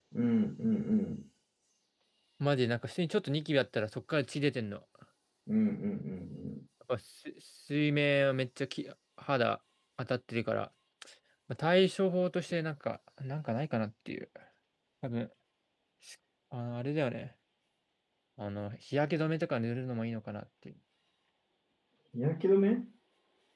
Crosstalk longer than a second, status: none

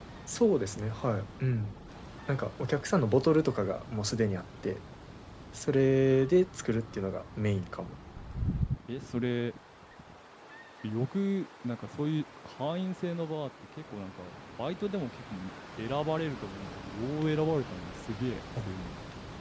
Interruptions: none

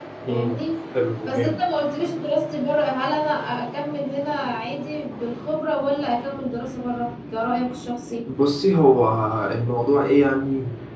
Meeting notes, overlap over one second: none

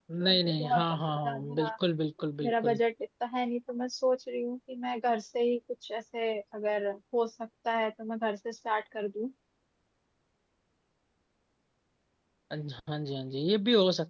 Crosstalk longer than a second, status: none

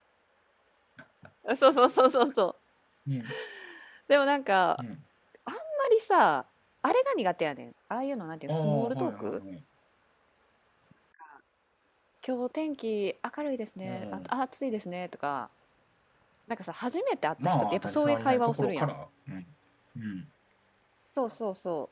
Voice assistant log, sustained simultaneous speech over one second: present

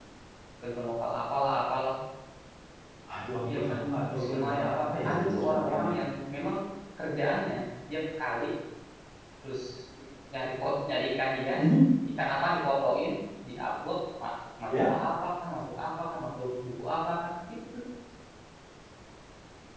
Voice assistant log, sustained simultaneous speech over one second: present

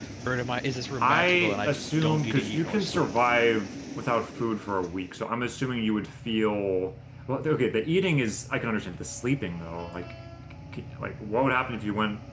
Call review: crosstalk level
present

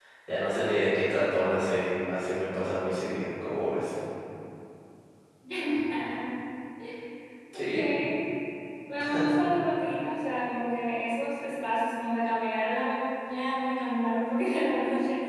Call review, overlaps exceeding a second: none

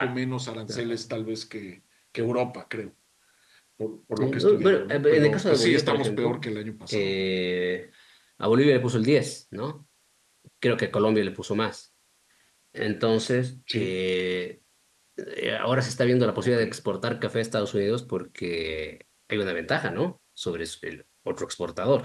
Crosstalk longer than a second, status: present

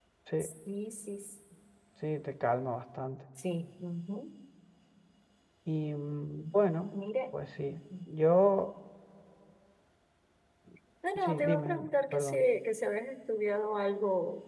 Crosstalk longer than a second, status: present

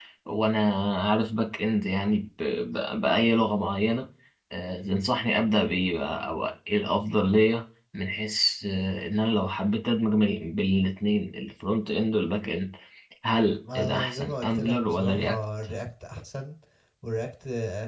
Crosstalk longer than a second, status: present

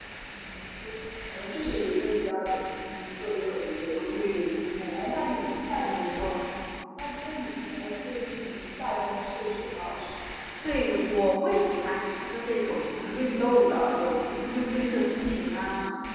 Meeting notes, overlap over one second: none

